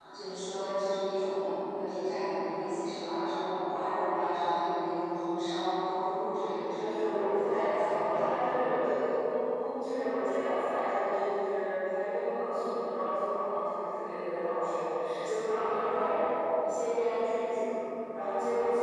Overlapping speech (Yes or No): Yes